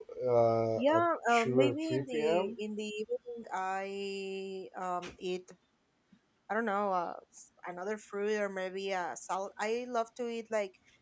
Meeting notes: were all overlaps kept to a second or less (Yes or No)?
No